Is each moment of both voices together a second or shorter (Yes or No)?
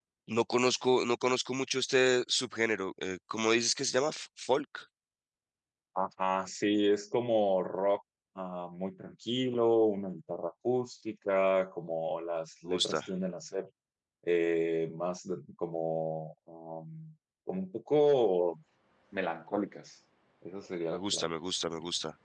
Yes